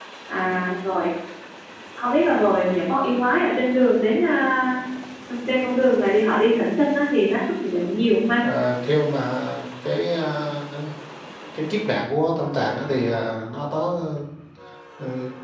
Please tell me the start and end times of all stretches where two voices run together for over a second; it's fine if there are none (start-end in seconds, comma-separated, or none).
none